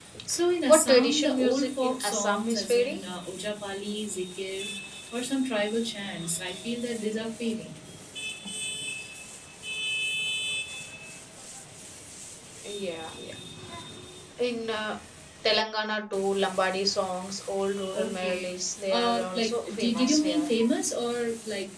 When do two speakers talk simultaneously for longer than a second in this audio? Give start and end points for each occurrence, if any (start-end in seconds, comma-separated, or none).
0.7-3.0, 18.9-20.5